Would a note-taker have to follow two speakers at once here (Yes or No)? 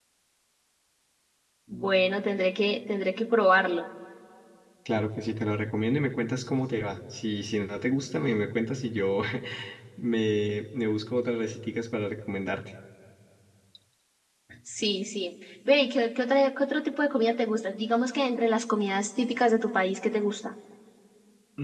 No